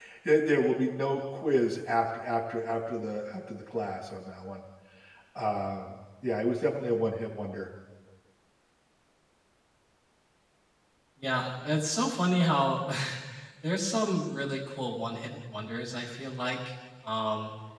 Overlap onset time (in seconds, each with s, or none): none